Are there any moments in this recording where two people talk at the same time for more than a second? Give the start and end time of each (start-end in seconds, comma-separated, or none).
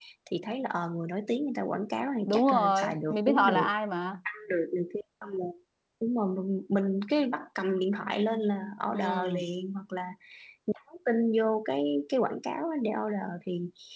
2.2-3.7